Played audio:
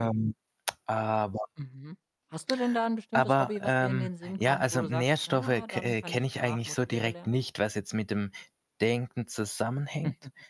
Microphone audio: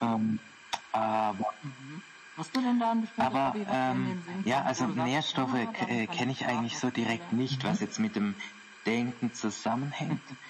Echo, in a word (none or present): present